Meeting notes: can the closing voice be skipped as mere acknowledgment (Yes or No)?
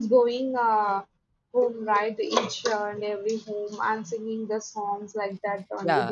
No